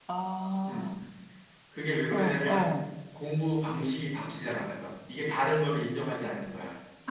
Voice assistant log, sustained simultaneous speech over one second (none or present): none